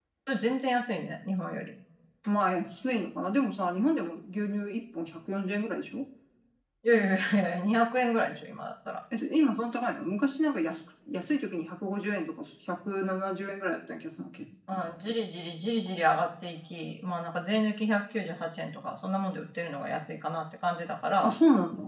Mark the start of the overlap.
none

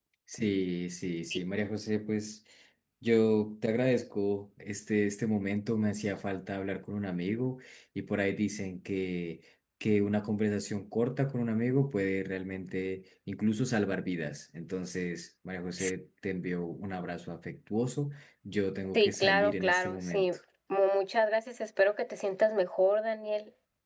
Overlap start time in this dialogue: 18.9 s

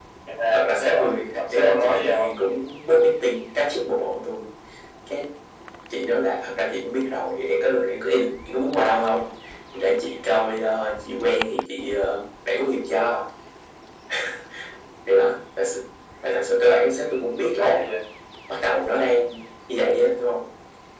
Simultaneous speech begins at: 0.5 s

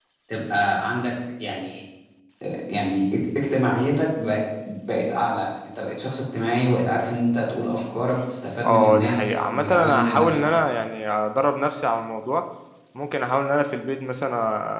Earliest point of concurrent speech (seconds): 8.6 s

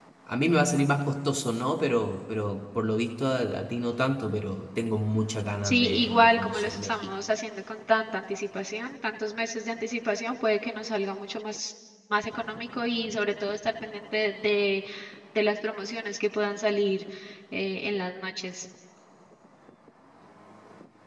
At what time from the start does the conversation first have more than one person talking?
5.6 s

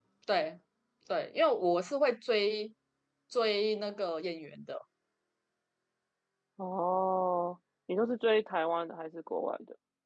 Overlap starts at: none

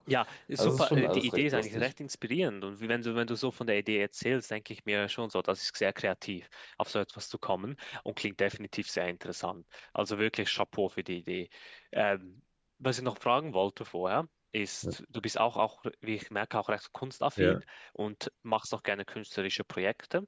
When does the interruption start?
0.6 s

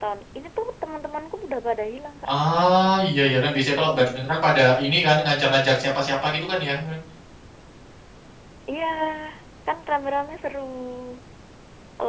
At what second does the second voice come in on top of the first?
none

